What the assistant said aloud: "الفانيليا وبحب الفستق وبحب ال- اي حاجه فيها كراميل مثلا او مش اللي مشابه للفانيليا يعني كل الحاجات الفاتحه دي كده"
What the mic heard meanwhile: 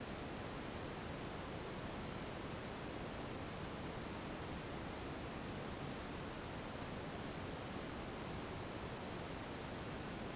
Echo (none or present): none